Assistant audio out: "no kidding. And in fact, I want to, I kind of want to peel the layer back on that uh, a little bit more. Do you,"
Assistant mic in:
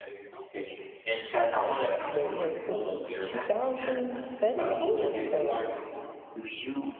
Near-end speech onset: 1.6 s

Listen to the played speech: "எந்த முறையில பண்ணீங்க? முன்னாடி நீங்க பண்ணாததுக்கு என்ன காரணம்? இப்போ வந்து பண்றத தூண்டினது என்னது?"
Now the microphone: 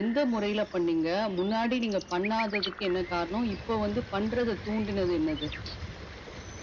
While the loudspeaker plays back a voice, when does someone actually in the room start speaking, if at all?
none

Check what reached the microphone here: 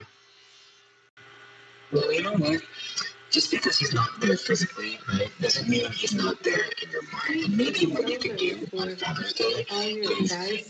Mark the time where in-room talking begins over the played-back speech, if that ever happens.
7.3 s

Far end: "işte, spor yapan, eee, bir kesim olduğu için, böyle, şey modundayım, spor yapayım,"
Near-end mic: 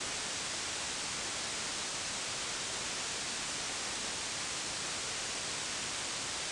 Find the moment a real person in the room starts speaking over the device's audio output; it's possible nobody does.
none

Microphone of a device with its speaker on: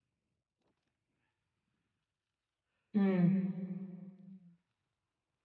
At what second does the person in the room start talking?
3.0 s

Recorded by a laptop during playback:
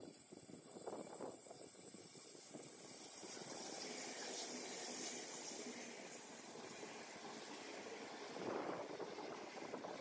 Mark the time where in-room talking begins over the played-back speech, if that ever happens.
none

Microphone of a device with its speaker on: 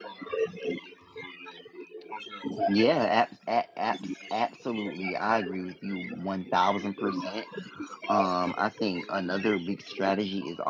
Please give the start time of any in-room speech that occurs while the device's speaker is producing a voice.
2.7 s

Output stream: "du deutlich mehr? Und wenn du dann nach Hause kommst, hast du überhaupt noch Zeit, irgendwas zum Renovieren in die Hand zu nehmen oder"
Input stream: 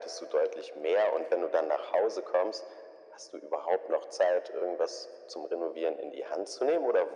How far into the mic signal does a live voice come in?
none

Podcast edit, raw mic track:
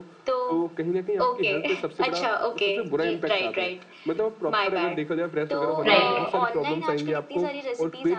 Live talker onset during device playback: 5.9 s

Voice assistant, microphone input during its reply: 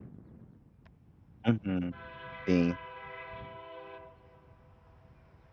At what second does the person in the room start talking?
1.5 s

